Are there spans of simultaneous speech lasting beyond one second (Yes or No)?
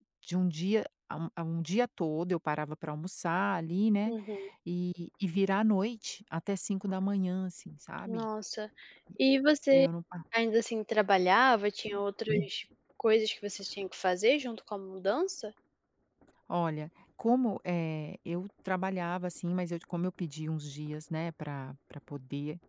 No